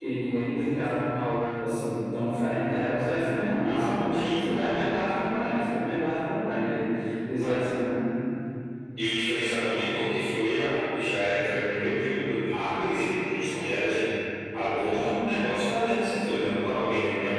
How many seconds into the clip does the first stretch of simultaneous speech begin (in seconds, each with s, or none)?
3.6 s